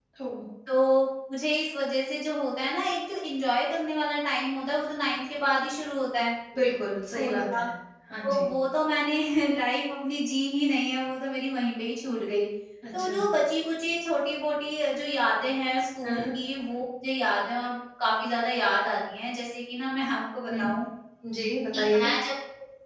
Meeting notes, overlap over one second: none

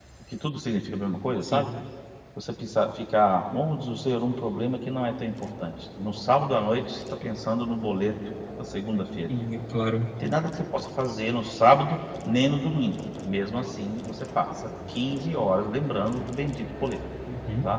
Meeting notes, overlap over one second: none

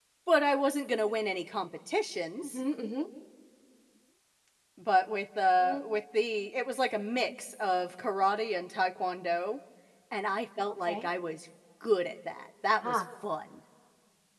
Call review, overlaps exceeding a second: none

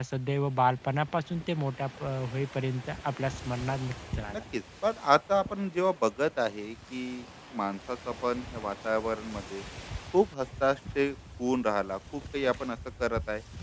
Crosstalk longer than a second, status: none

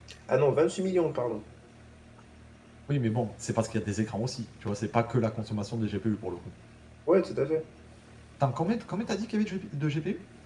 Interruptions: none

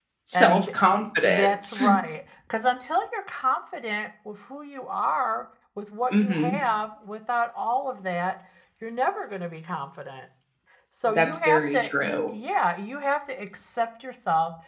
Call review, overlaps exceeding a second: present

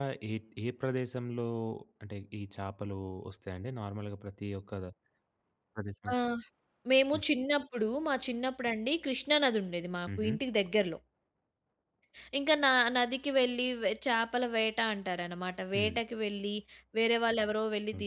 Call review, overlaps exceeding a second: none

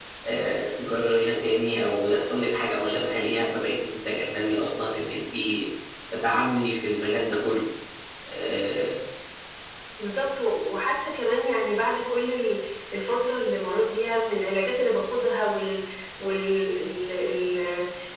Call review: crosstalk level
none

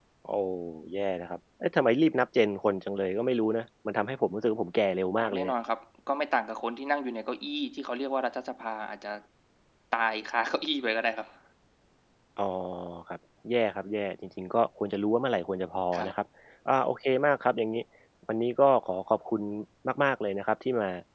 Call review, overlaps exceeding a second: none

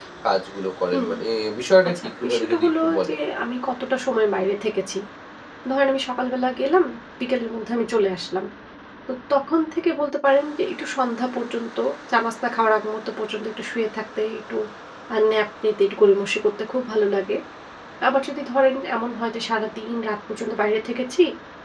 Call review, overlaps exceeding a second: present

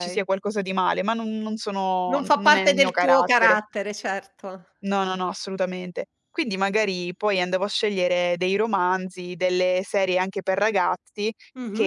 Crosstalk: present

